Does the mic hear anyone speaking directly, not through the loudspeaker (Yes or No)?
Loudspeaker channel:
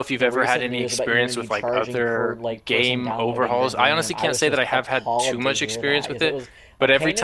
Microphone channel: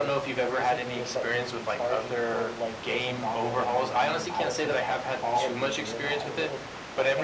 No